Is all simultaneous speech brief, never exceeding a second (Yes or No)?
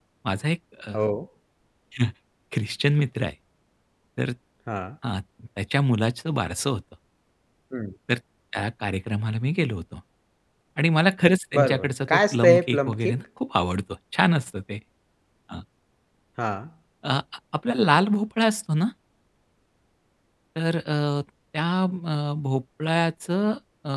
No